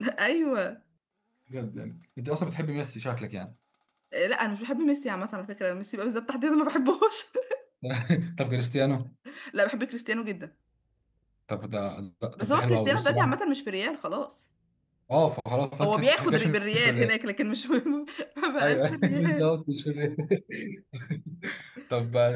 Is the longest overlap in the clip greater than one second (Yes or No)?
Yes